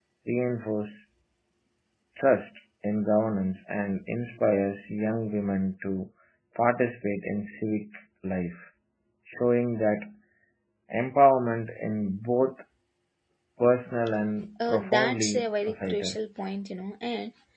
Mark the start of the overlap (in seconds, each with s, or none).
14.6 s